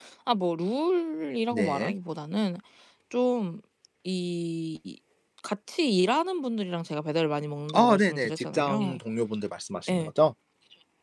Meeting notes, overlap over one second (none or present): present